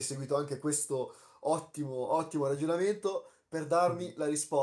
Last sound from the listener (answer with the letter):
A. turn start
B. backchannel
B